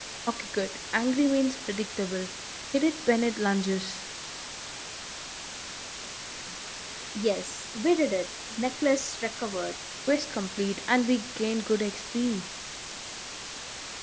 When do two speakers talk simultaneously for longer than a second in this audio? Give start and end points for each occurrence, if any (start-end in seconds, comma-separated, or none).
none